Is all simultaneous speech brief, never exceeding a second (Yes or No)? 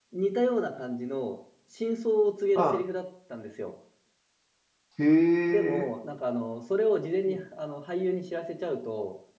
Yes